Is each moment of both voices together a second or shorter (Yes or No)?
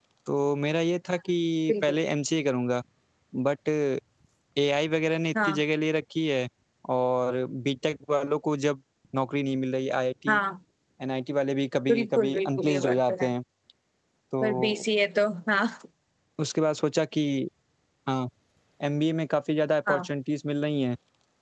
No